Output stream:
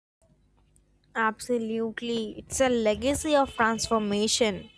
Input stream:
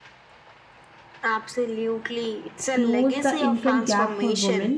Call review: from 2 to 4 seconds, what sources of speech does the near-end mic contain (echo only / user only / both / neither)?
both